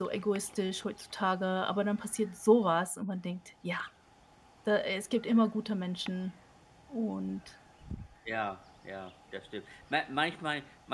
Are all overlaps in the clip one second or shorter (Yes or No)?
Yes